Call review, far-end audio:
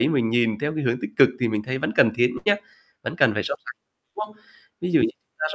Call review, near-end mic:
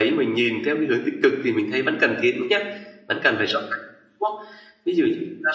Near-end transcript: none

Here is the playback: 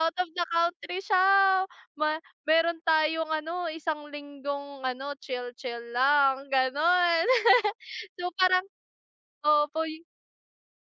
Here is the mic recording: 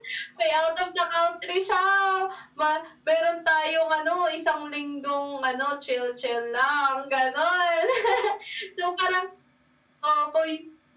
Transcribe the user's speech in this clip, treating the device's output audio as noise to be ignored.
none

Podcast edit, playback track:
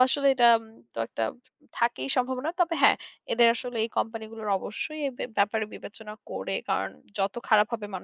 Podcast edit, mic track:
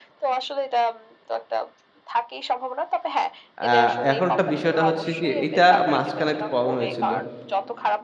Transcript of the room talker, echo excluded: এ্যাঁ এখন একটা বিষয়টা হচ্ছে কি এইটা মাঝখানে একটু প্রবলেম হয়েছিল।

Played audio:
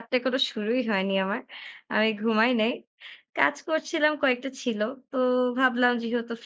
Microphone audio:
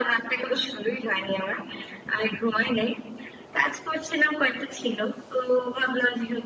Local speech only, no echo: none

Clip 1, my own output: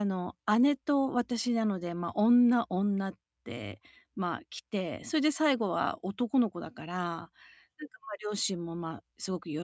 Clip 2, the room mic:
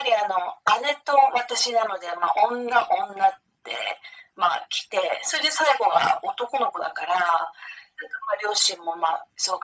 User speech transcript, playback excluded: none

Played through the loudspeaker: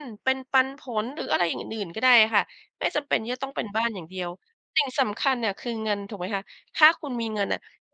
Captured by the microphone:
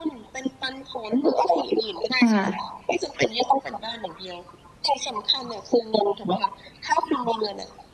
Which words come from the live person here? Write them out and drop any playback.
ค่ะ

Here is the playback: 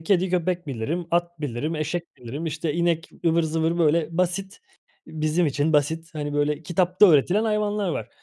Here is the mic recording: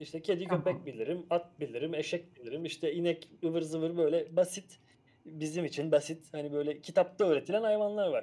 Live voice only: Tamam.

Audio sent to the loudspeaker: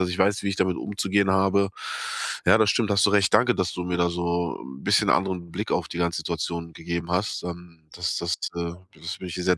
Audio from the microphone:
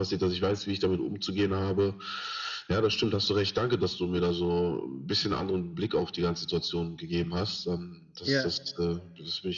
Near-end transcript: Ja.

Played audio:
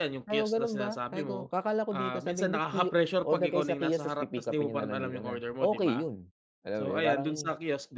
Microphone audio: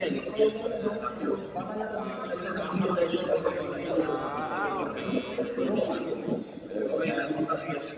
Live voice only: Ah, ah, okey hindi robot.

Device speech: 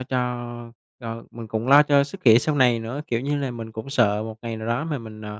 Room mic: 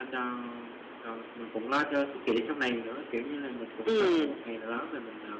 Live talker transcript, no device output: Ừm.

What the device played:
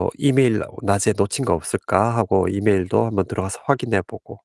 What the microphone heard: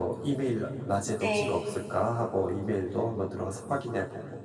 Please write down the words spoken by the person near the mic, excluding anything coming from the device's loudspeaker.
네.

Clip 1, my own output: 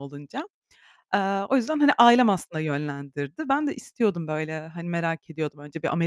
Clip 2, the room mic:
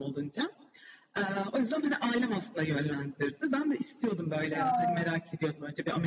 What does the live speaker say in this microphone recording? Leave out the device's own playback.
Ya.

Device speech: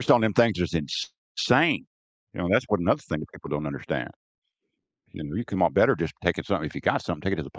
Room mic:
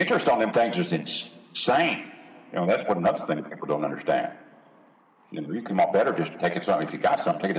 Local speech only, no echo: none

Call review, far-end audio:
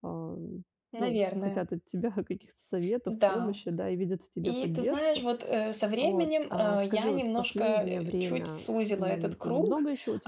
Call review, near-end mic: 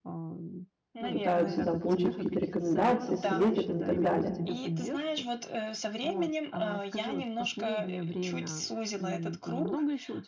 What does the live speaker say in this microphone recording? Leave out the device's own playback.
пытаются, да, получить какие-то рекомендации, советы там и так далее?

